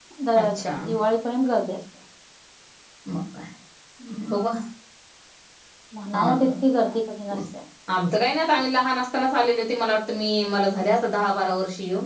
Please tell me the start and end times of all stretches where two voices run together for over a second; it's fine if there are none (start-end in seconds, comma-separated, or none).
none